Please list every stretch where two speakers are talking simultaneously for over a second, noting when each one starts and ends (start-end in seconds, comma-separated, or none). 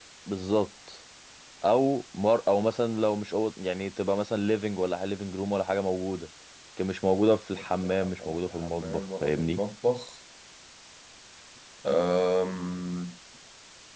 7.7-9.6